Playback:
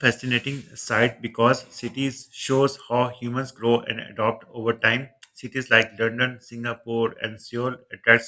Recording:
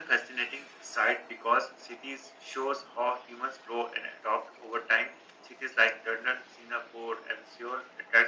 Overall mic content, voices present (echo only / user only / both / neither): echo only